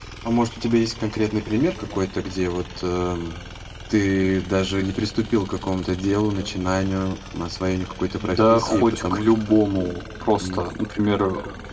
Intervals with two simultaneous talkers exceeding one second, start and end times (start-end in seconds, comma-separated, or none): 8.2-9.6